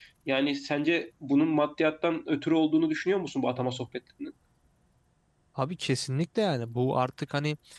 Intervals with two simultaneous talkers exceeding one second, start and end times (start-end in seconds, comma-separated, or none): none